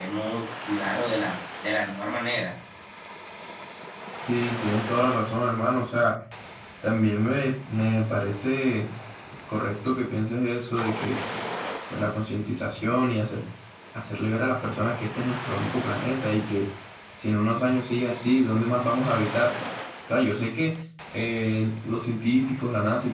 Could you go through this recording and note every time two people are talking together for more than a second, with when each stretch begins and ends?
none

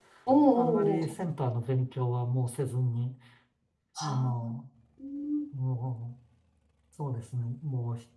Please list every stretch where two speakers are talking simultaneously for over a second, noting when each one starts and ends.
none

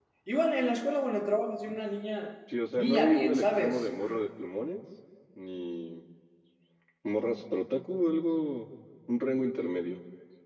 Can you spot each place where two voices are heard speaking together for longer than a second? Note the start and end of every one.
2.7-4.0

